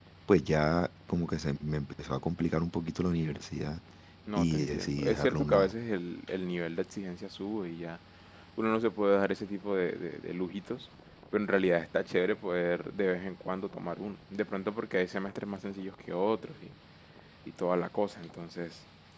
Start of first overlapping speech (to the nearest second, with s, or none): 4 s